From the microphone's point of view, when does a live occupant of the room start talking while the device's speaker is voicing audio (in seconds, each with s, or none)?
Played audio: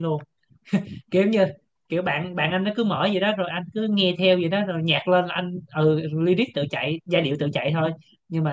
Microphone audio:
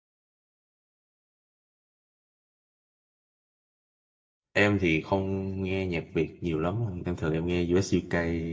4.5 s